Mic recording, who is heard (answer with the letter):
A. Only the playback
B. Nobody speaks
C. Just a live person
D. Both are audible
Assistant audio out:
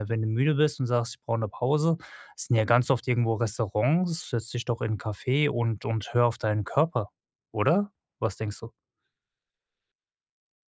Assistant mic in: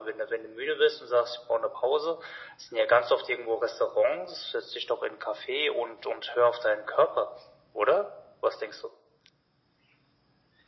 A